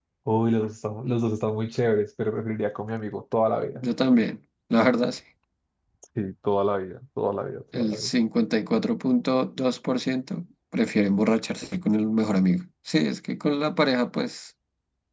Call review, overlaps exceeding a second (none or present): none